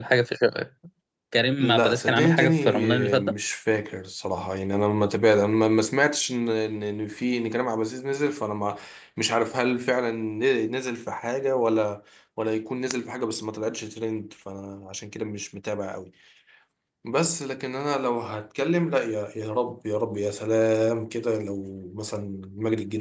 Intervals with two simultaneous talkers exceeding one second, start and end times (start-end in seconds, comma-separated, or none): 1.6-3.3